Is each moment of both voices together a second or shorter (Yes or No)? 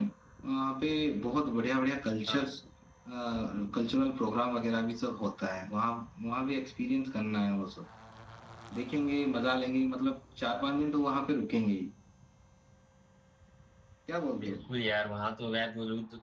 Yes